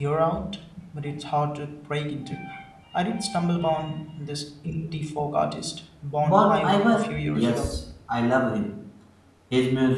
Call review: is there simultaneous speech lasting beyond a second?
Yes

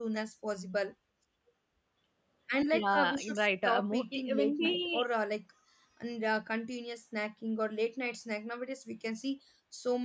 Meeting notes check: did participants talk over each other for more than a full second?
Yes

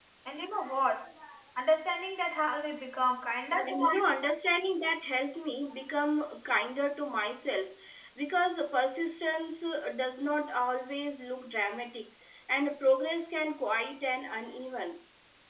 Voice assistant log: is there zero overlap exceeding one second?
Yes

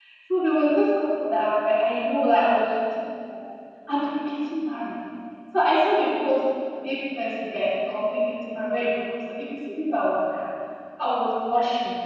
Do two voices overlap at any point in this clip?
No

